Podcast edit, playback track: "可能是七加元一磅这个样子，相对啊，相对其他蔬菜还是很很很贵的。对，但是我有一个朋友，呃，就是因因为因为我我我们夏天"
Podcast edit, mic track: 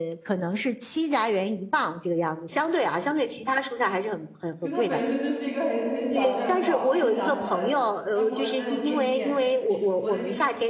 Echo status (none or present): present